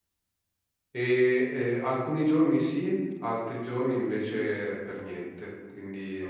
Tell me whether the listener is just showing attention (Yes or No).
No